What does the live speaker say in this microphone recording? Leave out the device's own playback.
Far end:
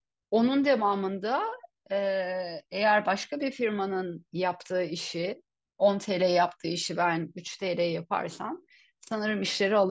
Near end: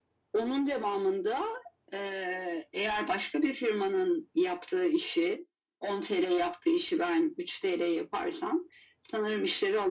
none

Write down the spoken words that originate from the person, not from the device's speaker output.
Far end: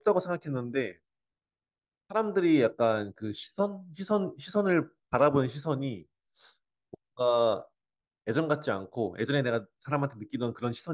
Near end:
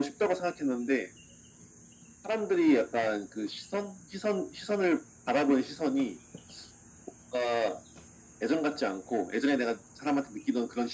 none

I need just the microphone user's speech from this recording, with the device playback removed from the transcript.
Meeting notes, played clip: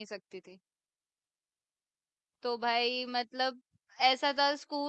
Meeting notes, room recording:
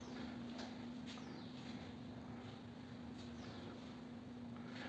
none

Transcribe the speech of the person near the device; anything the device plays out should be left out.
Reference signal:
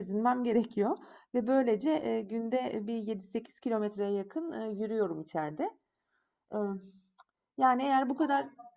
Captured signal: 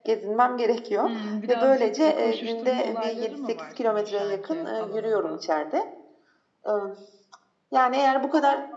Hmm, birazcık e, koşuşturma olayları mı var senin şu anki alanında?

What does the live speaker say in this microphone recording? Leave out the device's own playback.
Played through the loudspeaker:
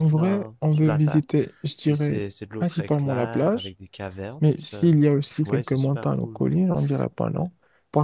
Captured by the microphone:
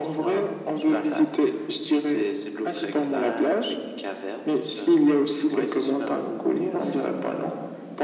none

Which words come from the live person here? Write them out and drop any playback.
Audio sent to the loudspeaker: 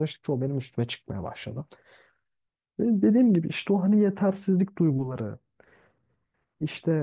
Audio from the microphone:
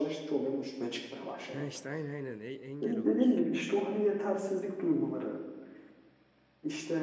Ha işte aynen aynen e- engel oluyorsun.

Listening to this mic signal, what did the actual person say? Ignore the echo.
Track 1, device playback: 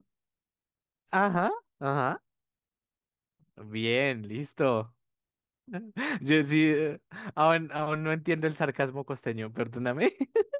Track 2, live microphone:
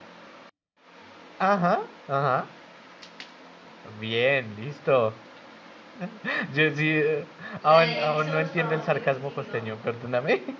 la de Episodes from Liberty City, ¿no?

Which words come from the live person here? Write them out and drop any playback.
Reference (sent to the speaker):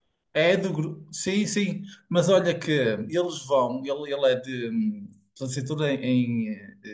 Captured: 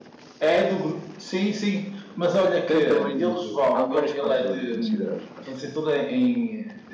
depende também, de- há vários fatores a considerar, acho que

